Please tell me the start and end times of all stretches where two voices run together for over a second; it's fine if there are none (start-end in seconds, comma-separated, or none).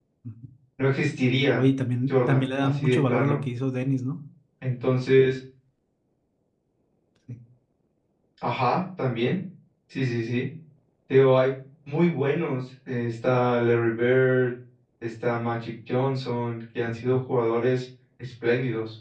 2.1-3.4